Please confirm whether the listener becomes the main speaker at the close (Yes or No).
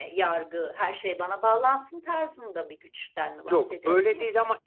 Yes